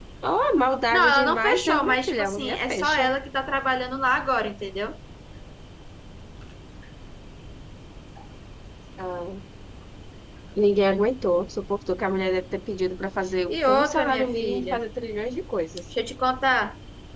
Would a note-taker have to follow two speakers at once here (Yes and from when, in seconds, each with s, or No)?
Yes, from 0.9 s